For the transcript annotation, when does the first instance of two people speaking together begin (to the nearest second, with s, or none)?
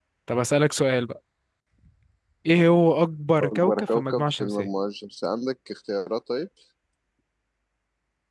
3 s